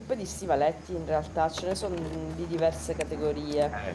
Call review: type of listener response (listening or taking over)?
listening